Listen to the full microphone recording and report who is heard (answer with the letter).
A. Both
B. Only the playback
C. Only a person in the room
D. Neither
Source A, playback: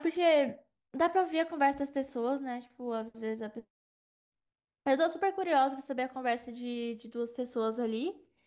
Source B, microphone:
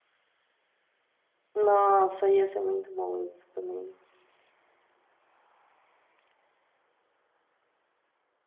C